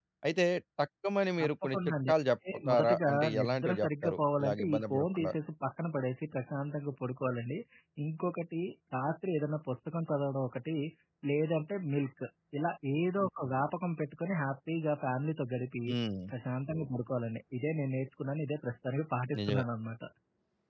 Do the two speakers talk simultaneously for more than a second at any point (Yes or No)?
Yes